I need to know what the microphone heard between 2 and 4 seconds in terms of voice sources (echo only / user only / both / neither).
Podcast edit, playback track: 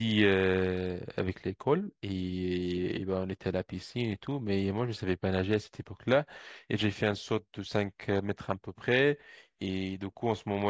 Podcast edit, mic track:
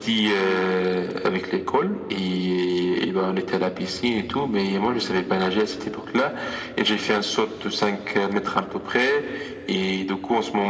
echo only